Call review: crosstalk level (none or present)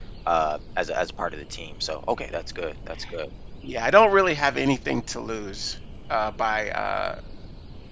none